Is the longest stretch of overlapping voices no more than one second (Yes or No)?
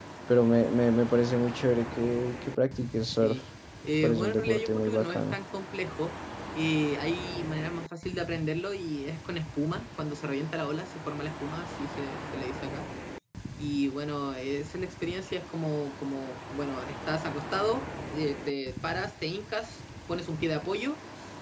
No